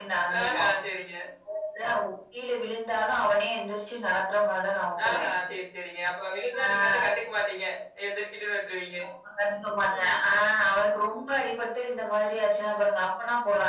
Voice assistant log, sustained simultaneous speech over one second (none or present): none